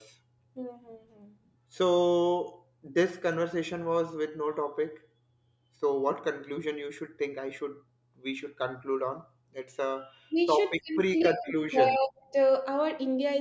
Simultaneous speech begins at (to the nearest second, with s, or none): 10 s